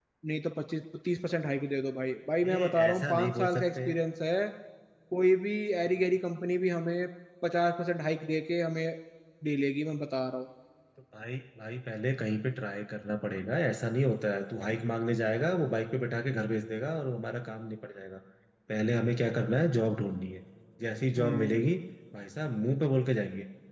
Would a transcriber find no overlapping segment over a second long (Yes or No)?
No